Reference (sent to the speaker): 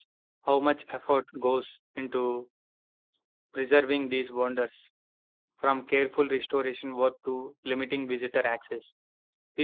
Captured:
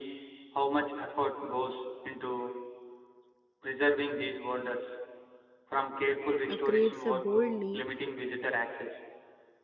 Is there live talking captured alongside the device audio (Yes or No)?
Yes